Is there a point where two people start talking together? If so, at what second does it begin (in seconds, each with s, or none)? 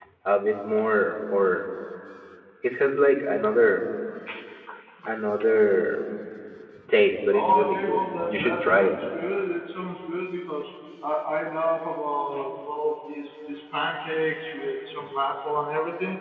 7.3 s